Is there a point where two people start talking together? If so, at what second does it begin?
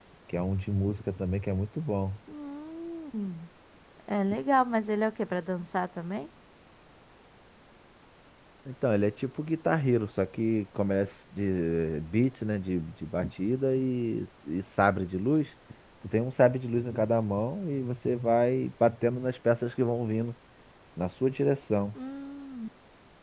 none

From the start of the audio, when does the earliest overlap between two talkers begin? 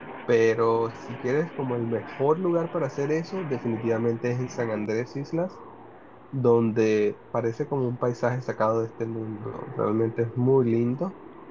none

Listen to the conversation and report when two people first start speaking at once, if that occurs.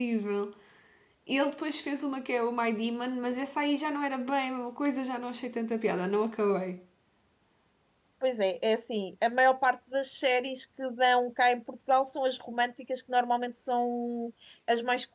none

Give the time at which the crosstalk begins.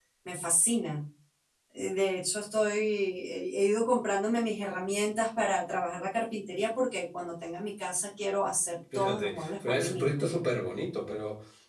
8.9 s

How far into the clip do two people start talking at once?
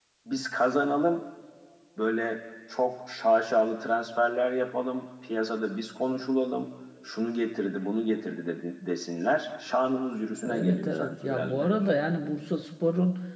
10.5 s

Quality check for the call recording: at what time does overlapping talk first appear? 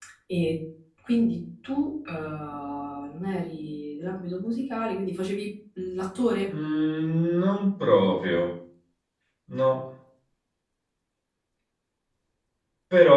none

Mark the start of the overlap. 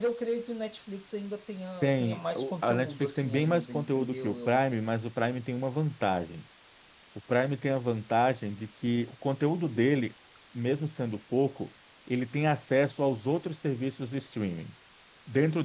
1.8 s

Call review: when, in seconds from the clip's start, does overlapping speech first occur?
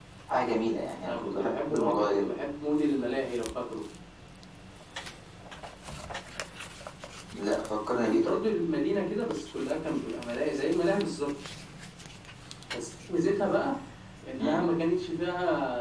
1.0 s

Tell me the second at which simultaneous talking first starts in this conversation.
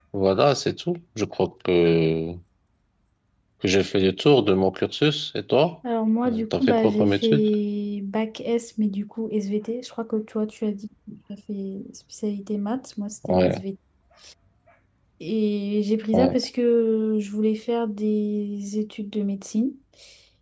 6.2 s

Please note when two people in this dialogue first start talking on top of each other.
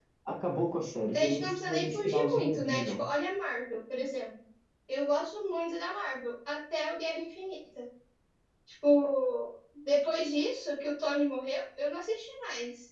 1.1 s

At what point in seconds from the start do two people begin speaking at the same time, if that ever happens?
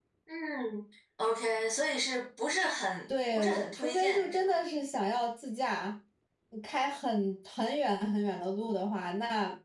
3.4 s

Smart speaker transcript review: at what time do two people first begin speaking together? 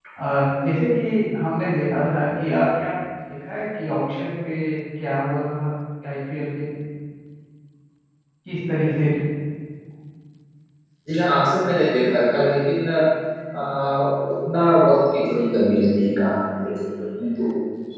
none

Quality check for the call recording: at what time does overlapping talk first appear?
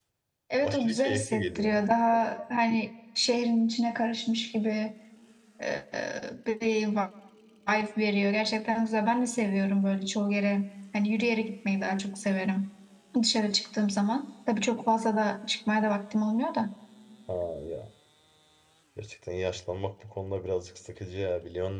0.6 s

